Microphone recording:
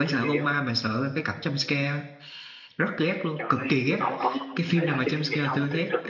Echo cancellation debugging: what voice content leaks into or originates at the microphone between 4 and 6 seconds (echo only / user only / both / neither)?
both